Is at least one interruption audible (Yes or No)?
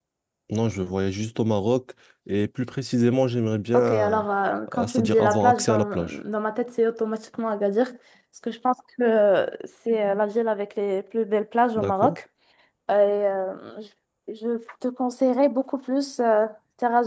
Yes